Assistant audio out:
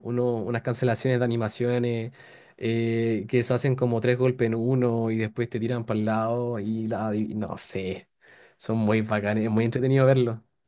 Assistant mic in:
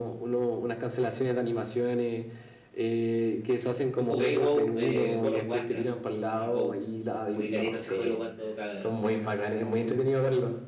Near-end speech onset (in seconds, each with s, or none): 3.9 s